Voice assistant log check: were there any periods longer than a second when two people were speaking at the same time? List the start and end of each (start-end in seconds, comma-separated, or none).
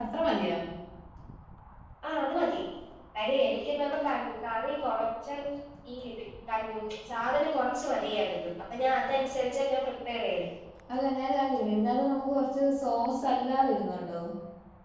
none